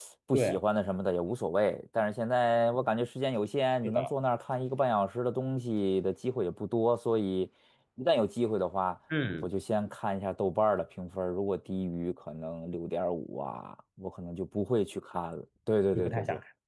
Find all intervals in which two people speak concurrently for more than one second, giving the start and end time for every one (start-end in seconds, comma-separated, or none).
none